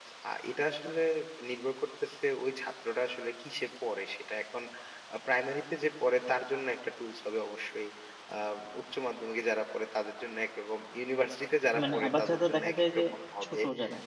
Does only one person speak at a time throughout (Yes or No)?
No